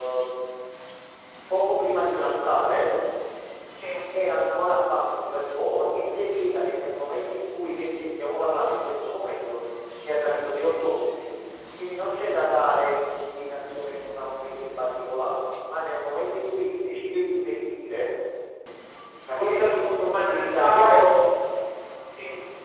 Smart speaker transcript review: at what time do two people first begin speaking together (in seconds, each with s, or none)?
19.4 s